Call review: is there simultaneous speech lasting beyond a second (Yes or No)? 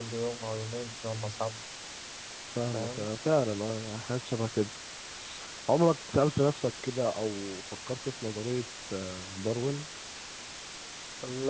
No